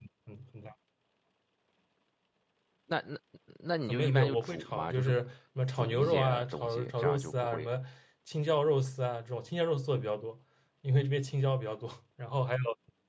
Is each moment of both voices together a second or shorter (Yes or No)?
No